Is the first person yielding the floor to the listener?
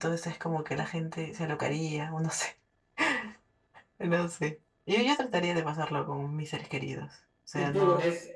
Yes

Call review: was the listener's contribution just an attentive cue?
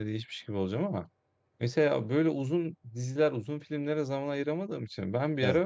Yes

